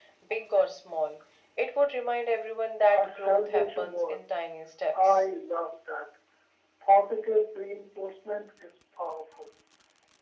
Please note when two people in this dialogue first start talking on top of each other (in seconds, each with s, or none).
3.0 s